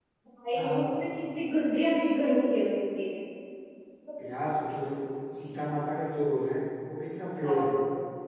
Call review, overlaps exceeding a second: none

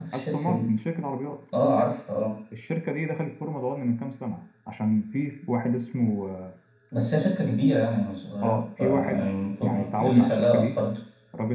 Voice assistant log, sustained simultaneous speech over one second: present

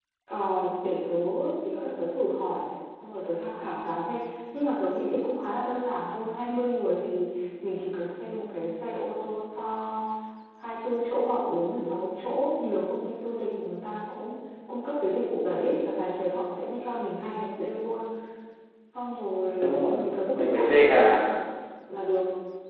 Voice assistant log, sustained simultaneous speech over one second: present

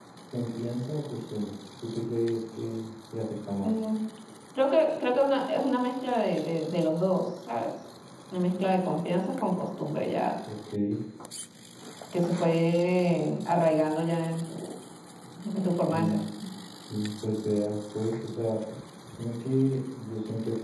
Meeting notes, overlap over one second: none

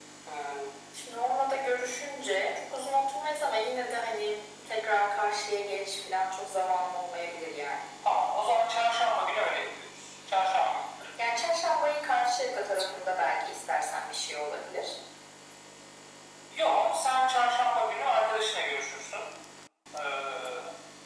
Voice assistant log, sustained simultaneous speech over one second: none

